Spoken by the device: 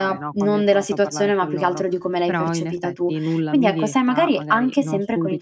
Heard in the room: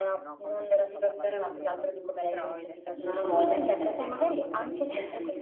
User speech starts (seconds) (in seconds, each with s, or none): 2.9 s